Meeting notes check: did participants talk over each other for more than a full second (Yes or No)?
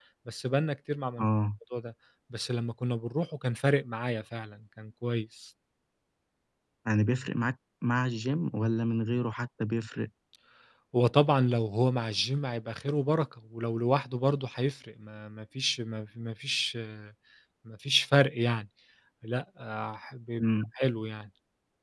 No